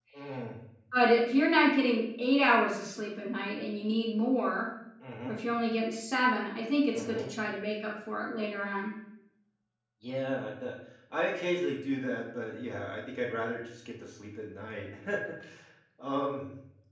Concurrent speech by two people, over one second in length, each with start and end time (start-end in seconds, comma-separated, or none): none